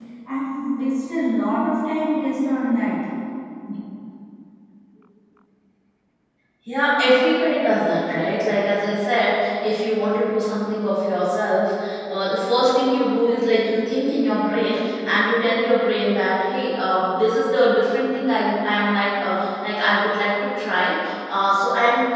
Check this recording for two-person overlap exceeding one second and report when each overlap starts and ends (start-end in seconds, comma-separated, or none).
none